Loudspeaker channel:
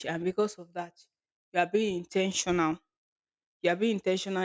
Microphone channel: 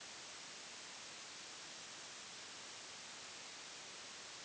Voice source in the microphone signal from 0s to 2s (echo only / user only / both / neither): neither